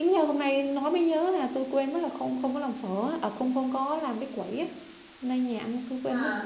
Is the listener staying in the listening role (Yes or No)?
Yes